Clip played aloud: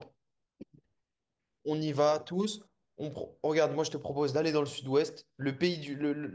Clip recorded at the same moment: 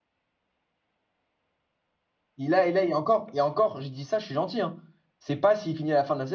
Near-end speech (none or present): present